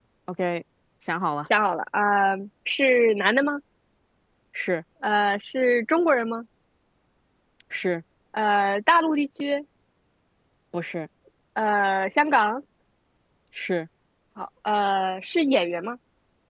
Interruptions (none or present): none